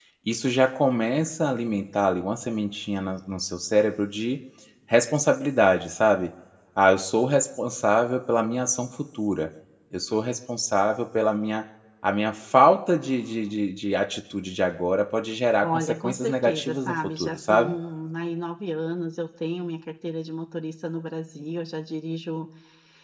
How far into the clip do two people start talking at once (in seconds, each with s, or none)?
15.6 s